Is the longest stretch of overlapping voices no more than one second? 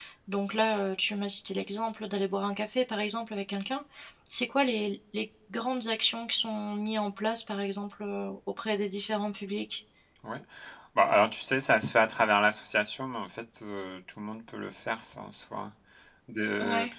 Yes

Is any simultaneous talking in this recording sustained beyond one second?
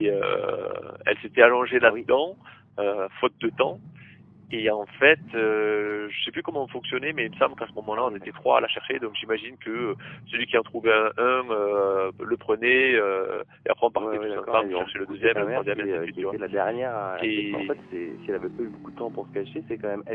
Yes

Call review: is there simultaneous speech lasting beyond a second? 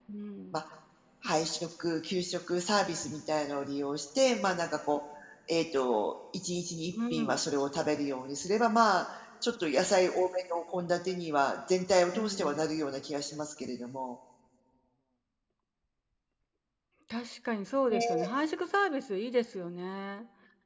No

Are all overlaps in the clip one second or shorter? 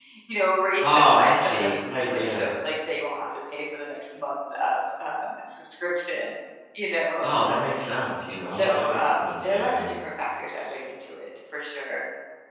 No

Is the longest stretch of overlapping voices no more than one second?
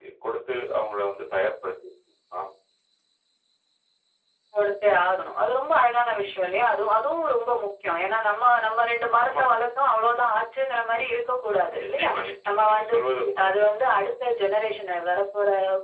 Yes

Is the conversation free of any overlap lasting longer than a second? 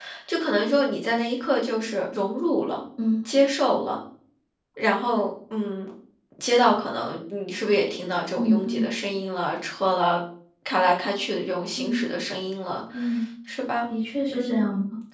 Yes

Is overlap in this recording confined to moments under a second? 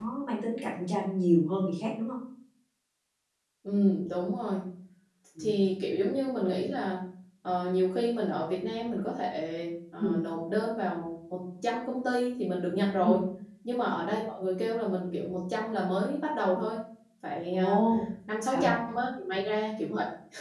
Yes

